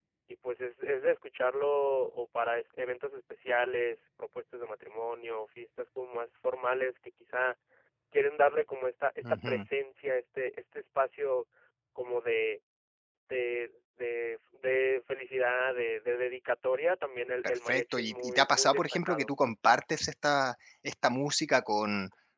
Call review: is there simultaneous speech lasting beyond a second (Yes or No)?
Yes